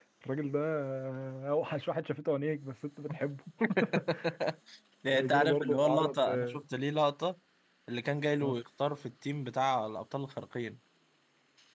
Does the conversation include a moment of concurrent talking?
Yes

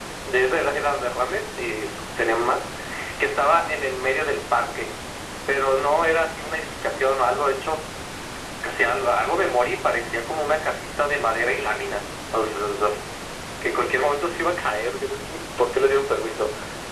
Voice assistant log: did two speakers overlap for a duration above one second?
No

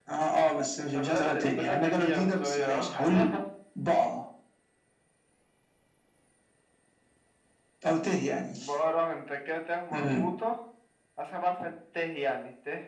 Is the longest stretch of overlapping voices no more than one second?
No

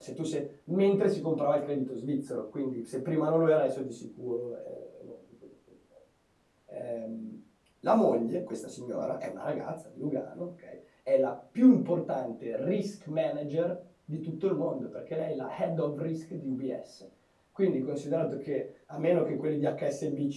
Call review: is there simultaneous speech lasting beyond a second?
No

